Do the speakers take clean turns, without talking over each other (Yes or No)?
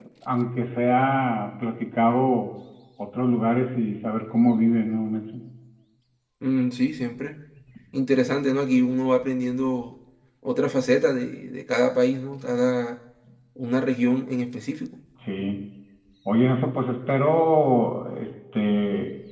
Yes